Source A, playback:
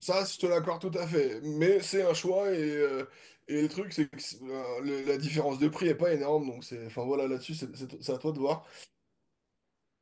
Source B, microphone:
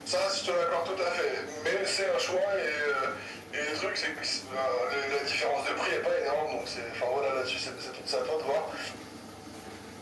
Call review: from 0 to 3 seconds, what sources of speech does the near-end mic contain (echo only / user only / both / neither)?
echo only